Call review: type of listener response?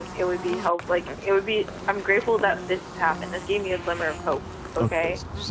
taking over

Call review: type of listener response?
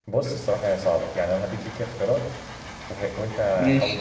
listening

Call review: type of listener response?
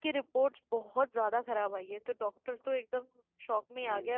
listening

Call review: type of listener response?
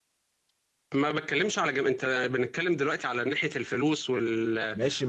taking over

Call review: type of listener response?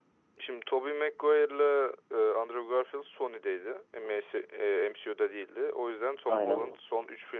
listening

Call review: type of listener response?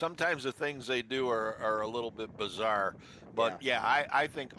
listening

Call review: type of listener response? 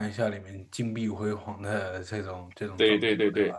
taking over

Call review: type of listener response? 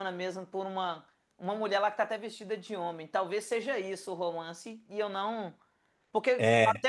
listening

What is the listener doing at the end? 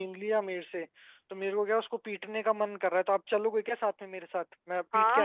taking over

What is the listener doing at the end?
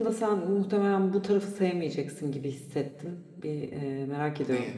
listening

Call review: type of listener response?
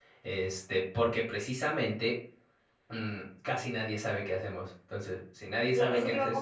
taking over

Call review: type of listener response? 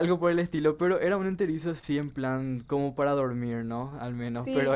taking over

